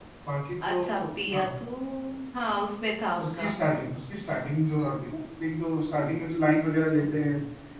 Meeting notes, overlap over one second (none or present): none